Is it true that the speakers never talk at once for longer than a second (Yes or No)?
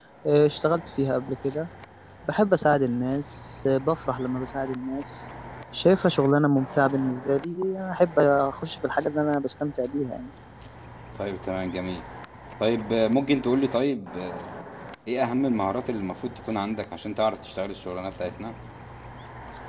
Yes